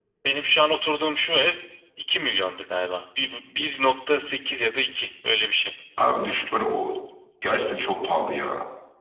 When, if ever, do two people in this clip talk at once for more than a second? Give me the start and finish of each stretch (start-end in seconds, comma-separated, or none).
none